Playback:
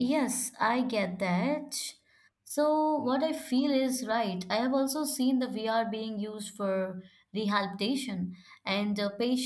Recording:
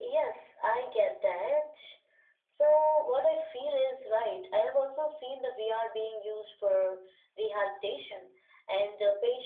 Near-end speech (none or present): none